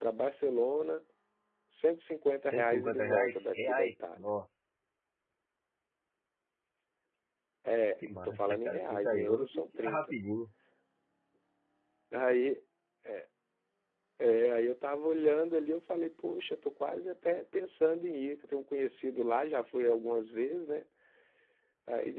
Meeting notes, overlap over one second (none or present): present